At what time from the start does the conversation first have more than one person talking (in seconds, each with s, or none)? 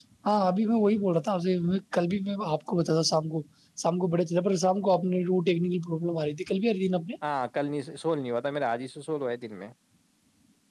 none